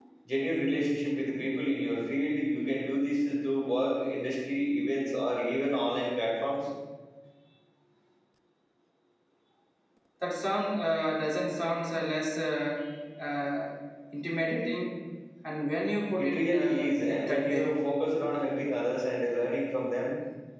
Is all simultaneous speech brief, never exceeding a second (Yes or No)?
No